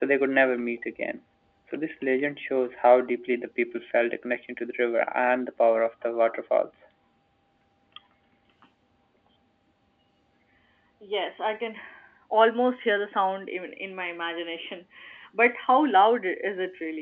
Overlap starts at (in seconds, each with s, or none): none